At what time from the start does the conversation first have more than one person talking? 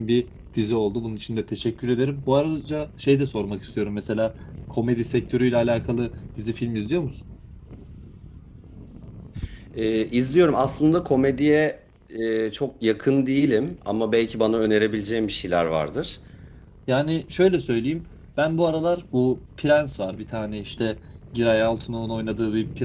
none

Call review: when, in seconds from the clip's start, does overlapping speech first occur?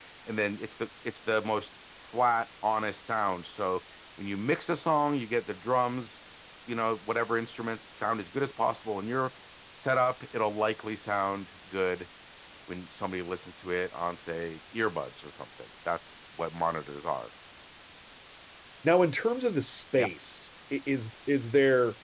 none

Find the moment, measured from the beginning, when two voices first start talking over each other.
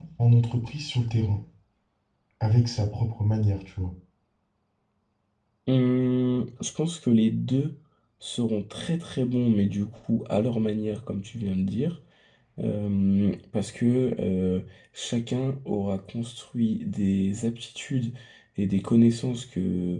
none

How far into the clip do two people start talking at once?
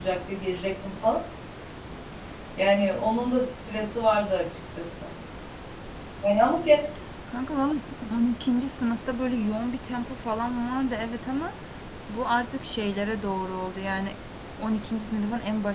none

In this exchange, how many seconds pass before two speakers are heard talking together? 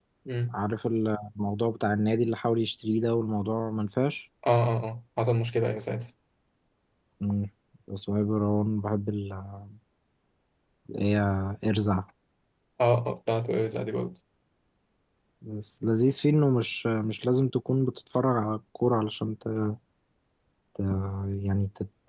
none

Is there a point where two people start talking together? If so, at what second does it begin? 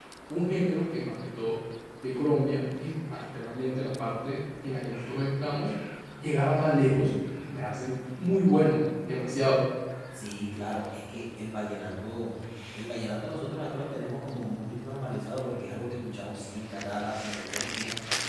none

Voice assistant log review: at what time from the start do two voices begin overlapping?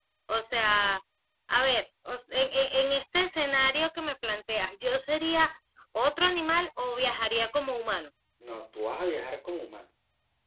none

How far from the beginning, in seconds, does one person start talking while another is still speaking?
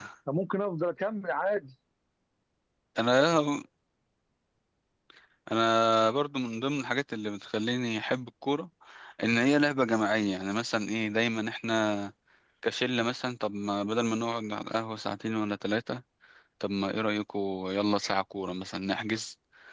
none

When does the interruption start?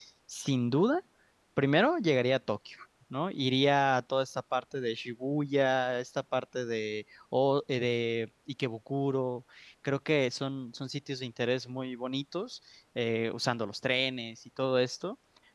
none

